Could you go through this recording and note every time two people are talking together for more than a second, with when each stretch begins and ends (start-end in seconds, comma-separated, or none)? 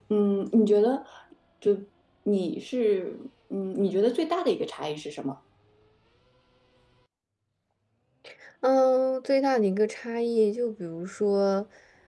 none